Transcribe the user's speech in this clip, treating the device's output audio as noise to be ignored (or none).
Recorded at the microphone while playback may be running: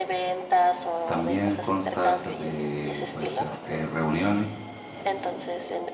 también consta a veces de, puede ser, eh, reuniones,